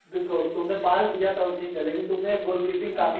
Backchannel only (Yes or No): Yes